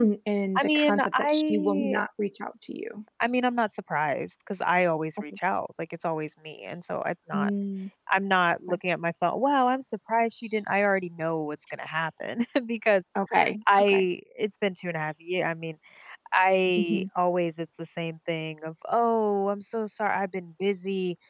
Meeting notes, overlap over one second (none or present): present